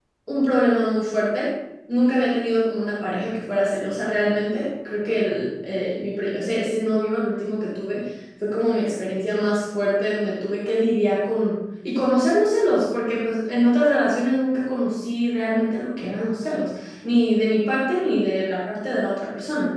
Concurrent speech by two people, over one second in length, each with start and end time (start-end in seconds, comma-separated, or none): none